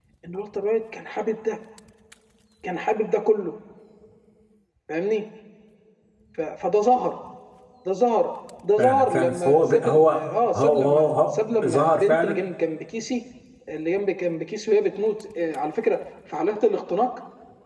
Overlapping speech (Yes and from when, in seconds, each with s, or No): Yes, from 8.8 s